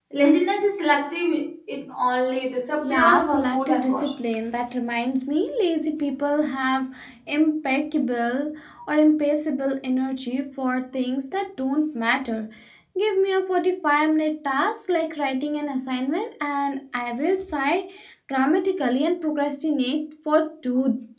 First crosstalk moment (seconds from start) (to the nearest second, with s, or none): 3 s